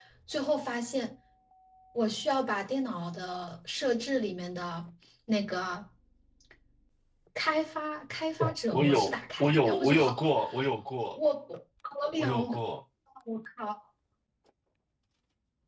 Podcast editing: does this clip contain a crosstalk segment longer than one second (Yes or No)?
Yes